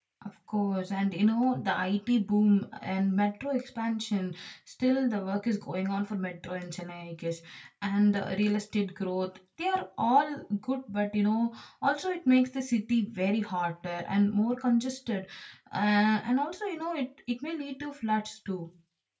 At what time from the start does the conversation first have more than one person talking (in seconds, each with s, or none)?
none